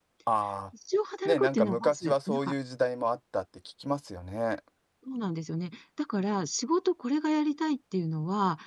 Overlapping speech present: Yes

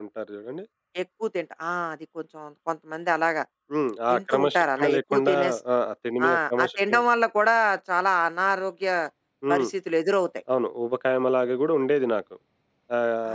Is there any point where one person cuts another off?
Yes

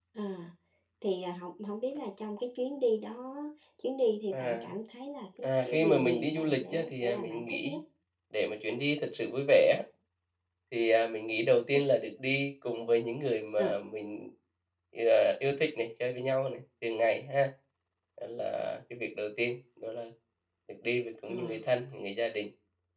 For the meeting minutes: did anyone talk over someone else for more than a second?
Yes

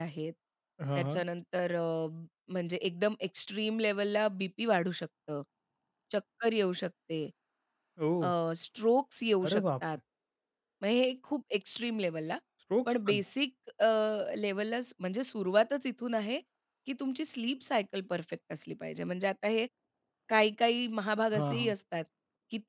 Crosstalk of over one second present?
No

